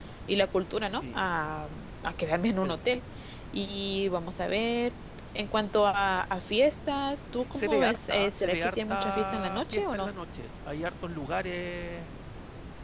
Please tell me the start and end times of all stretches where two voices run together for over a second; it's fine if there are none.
7.5-10.1

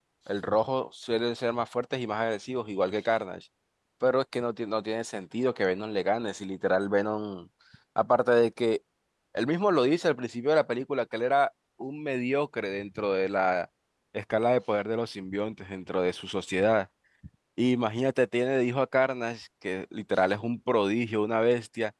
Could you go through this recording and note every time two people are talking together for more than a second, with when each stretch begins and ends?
none

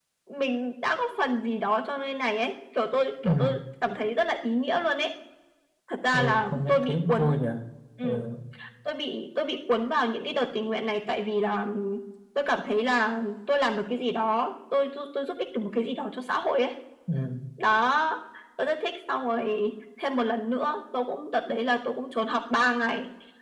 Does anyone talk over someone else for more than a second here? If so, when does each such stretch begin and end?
6.1-7.4

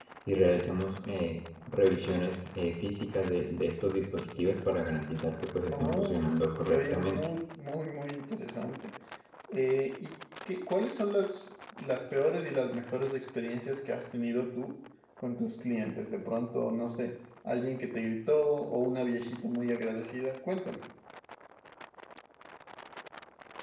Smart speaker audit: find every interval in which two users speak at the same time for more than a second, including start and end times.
5.7-7.3

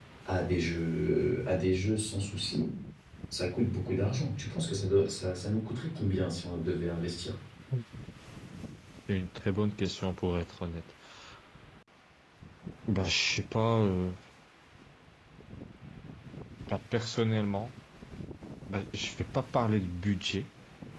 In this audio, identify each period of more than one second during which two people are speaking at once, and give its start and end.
none

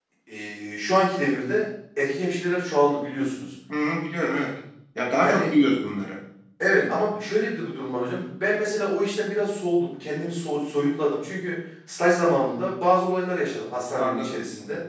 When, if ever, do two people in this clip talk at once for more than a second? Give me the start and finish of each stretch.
none

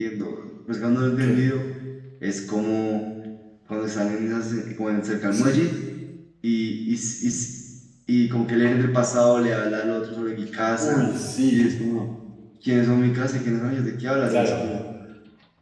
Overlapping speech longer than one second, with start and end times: none

